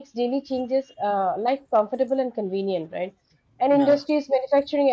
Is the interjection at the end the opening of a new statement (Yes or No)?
No